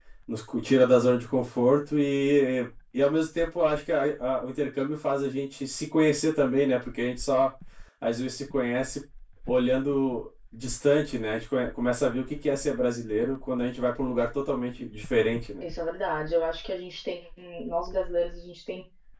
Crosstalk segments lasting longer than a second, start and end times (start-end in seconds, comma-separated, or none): none